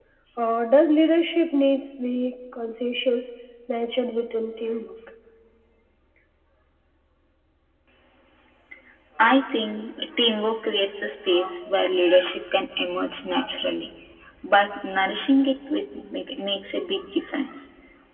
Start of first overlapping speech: none

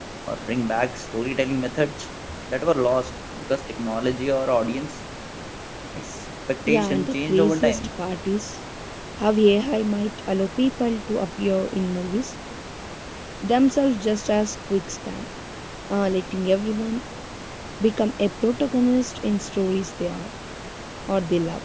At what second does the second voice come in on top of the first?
6.7 s

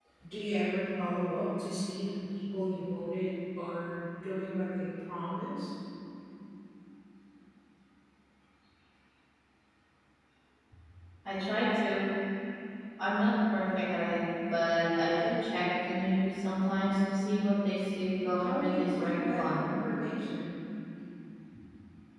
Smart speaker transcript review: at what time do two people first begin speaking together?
18.4 s

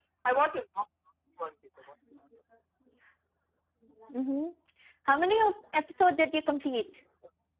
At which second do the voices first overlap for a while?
none

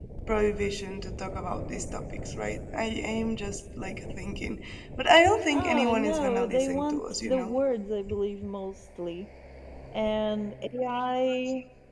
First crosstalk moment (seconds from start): 5.5 s

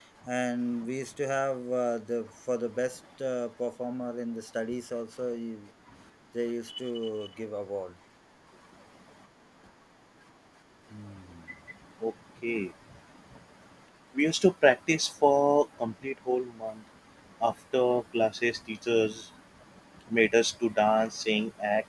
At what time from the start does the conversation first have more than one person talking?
none

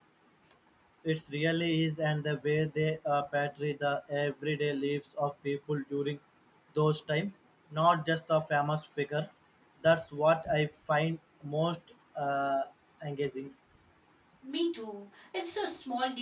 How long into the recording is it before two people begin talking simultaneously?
none

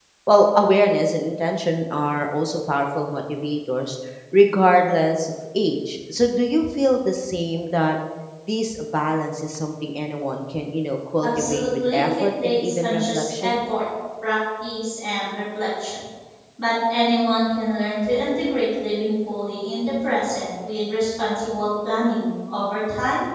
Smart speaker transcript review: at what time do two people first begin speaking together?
11.2 s

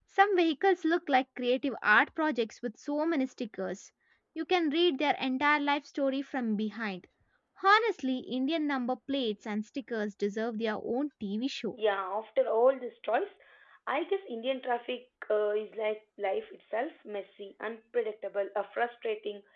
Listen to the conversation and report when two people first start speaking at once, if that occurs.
none

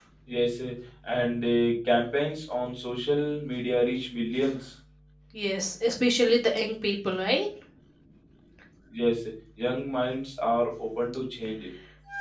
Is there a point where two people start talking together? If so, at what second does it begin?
none

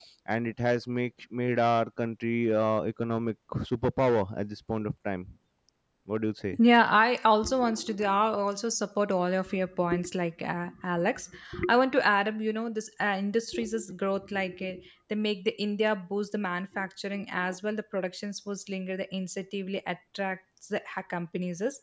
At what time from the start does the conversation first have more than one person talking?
none

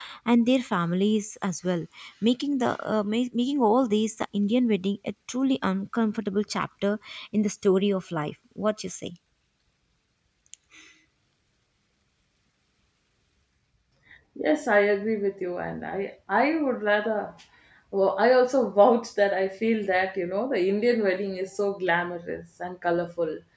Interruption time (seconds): none

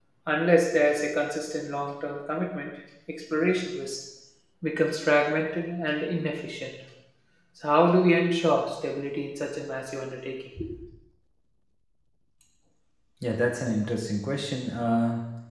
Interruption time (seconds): none

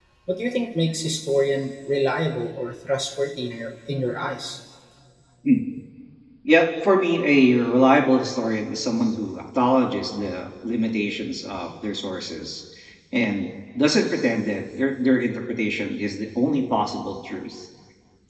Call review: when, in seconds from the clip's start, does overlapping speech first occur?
none

